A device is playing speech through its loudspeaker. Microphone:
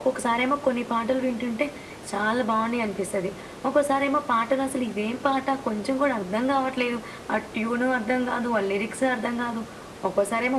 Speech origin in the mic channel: echo only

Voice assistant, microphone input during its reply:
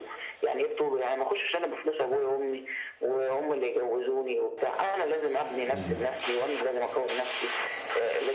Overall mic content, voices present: both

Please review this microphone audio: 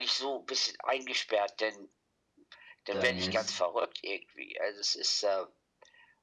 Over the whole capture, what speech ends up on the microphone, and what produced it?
both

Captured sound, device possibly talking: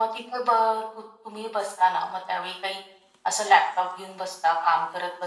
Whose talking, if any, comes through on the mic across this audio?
echo only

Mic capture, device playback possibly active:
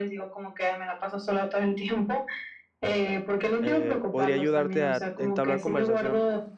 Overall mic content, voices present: both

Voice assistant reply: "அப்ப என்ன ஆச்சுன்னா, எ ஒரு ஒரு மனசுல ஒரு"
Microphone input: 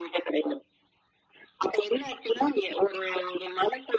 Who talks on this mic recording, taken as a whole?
echo only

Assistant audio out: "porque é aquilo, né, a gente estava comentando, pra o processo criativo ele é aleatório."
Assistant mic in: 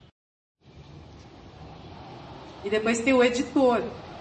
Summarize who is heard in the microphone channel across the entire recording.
user only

